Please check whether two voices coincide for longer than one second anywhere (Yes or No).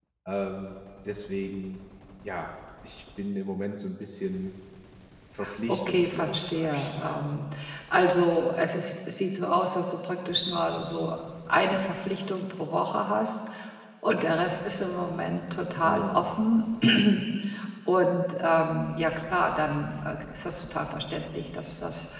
Yes